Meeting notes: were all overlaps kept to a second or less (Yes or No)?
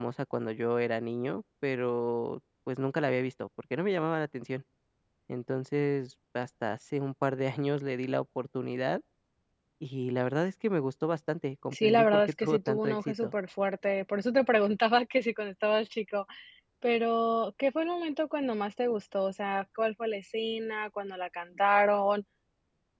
No